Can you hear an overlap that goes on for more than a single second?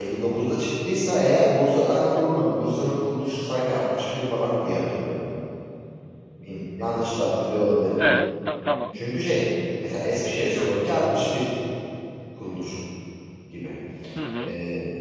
No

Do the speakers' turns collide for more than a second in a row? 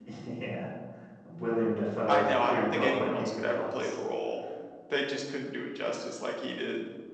Yes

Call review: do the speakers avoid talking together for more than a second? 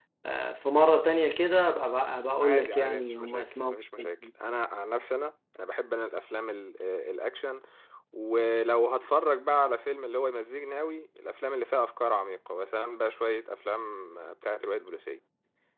No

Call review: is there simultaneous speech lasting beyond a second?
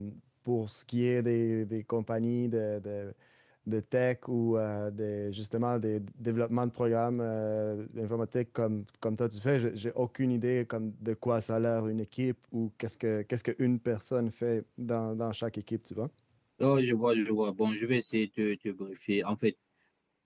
No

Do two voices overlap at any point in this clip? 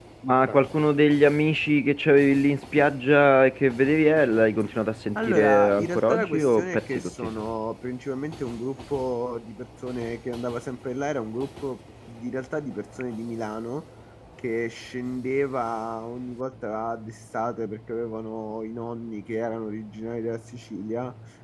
Yes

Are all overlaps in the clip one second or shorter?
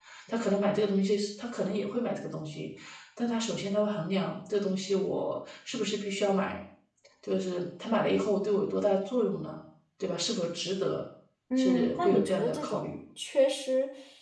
No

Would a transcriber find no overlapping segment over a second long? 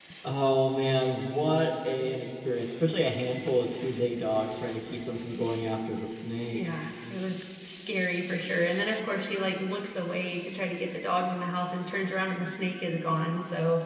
Yes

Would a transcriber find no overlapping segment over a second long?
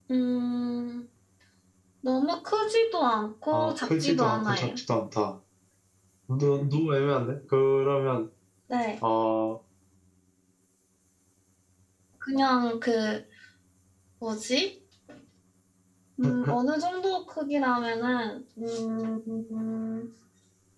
No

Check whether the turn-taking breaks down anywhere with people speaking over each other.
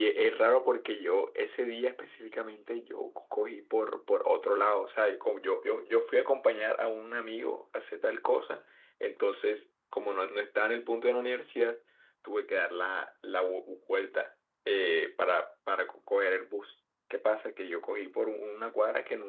No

